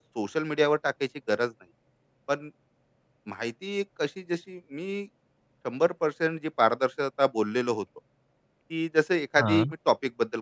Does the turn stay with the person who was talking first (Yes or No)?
Yes